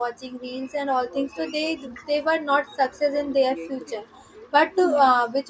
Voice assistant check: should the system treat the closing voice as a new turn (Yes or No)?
No